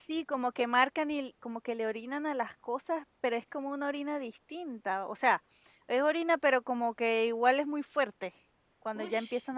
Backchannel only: No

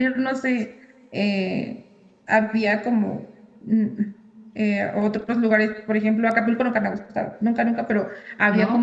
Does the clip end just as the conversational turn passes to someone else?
No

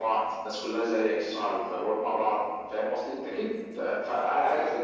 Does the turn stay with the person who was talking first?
No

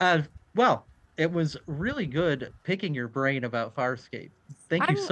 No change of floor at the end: No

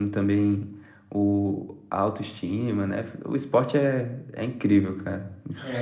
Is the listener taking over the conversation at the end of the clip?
Yes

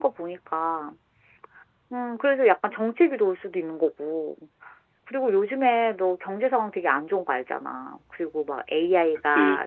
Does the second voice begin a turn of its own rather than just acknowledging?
No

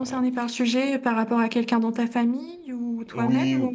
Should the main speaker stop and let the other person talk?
Yes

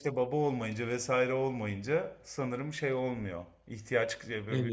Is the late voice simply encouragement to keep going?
Yes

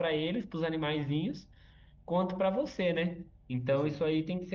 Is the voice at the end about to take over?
No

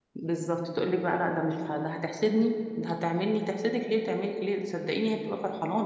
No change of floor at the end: No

